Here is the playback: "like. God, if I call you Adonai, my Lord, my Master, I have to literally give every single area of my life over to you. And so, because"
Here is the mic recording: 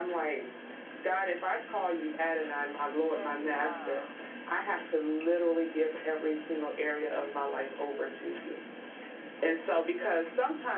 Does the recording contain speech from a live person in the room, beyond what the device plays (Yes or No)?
Yes